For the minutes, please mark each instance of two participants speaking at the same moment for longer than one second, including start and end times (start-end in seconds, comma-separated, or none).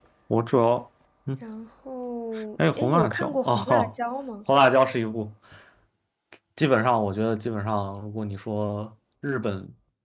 2.7-3.9